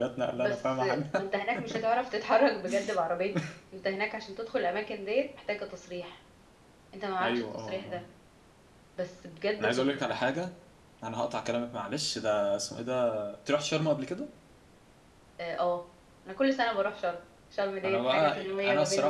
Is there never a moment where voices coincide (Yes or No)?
No